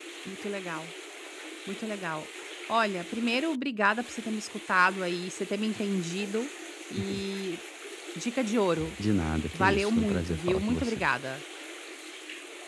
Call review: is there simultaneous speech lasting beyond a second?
Yes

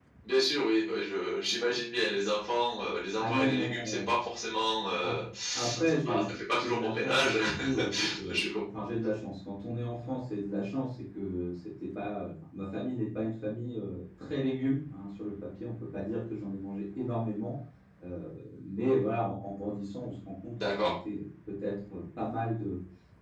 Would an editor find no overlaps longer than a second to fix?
No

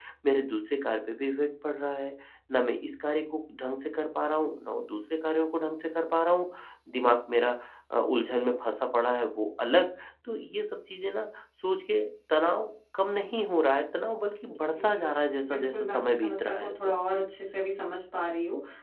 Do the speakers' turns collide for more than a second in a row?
Yes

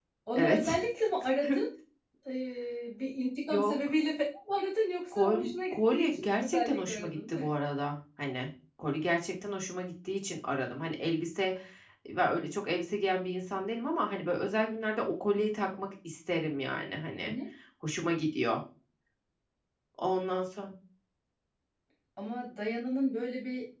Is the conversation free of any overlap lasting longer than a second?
No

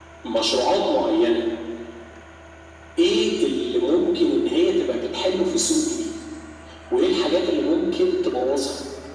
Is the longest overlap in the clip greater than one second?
No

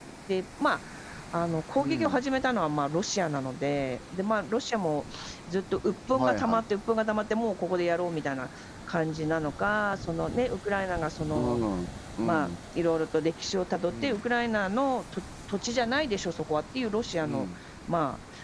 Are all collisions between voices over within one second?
Yes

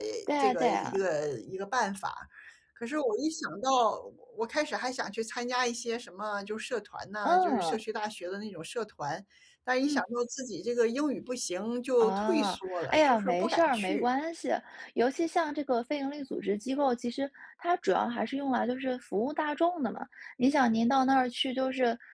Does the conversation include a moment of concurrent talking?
Yes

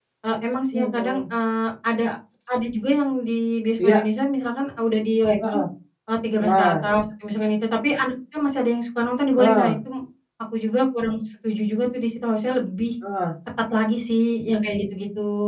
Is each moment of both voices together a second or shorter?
Yes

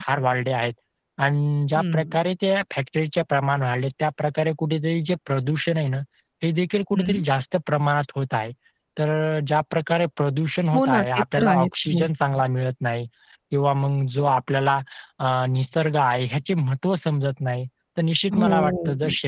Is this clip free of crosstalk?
No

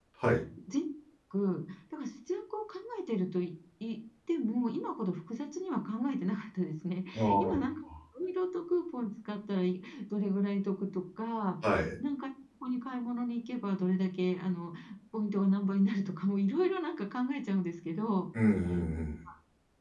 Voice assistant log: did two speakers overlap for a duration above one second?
No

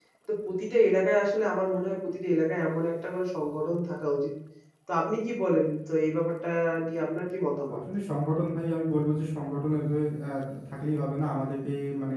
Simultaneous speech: No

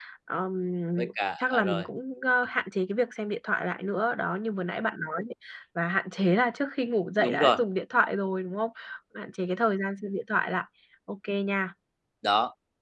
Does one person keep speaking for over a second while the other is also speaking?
No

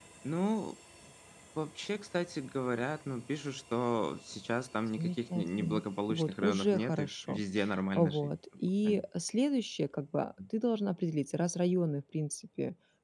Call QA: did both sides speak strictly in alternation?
No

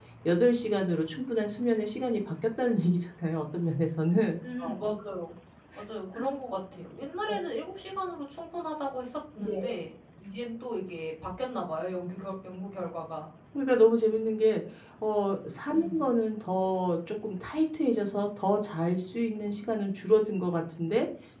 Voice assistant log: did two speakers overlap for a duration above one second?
No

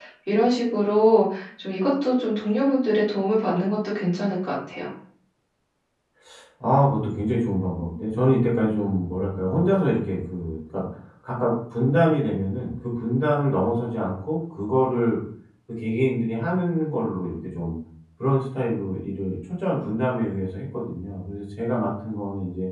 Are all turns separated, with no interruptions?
Yes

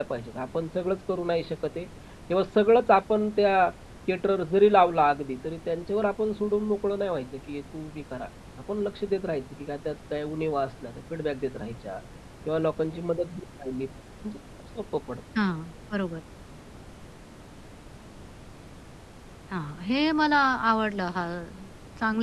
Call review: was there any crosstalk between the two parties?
No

